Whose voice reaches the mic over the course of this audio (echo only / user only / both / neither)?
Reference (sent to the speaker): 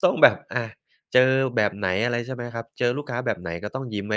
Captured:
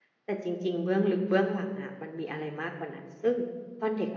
user only